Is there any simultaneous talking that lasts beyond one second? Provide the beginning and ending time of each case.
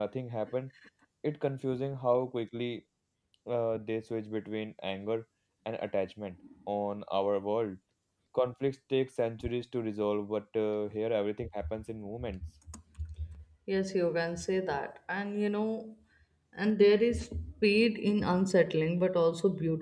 none

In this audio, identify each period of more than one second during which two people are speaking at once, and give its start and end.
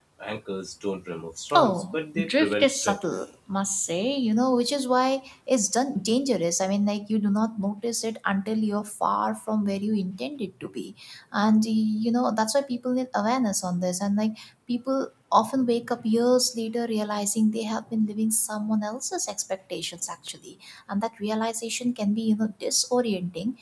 1.5-3.0

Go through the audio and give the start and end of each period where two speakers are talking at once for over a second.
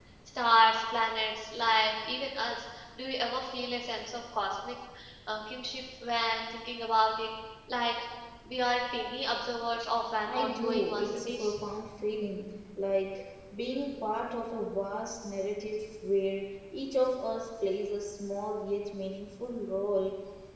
10.3-11.6

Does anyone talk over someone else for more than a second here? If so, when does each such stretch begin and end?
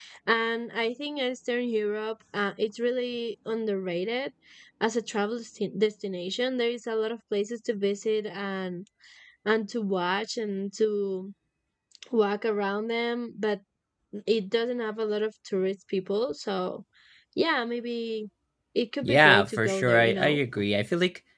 19.0-20.4

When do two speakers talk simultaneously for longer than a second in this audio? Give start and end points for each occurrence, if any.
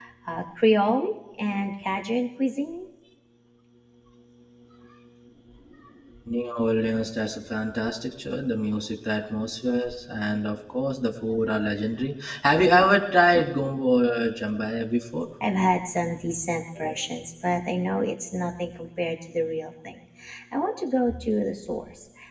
none

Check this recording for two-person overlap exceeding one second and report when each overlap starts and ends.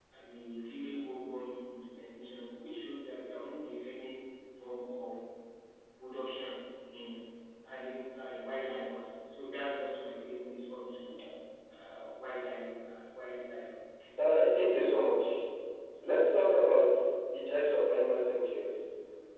none

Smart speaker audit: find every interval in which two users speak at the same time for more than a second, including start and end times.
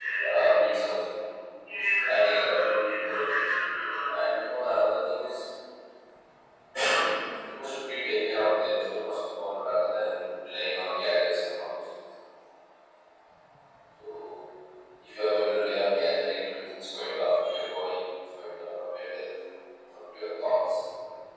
2.1-3.4

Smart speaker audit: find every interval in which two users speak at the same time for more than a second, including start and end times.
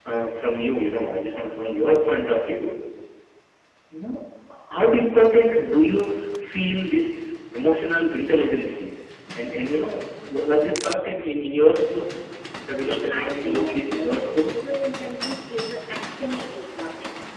12.8-14.5

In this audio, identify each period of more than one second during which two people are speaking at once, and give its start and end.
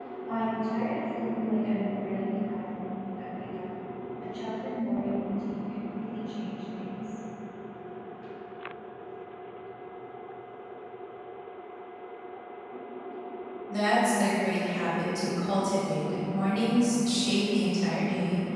none

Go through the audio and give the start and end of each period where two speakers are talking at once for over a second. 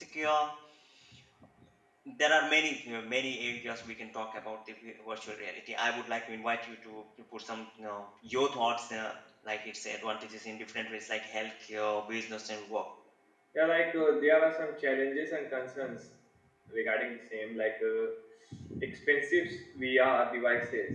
none

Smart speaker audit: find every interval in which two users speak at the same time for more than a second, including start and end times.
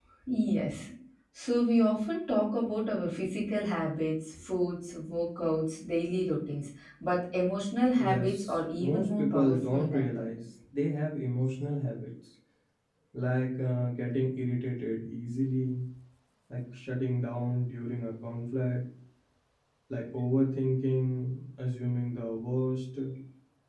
8.0-10.4

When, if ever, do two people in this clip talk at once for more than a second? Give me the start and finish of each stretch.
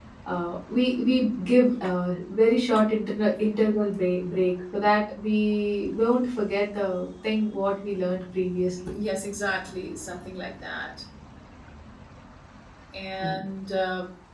none

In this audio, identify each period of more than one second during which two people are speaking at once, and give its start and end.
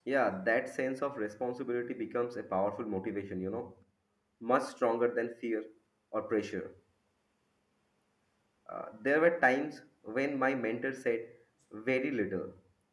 none

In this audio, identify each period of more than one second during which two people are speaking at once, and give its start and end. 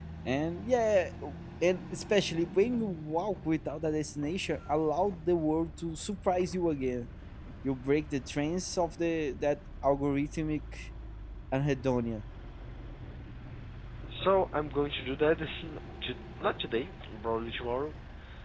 none

